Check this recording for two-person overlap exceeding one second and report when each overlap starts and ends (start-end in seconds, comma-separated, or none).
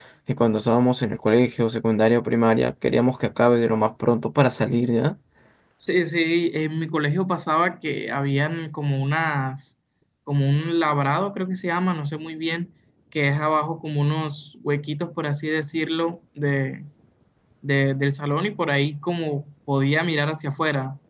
none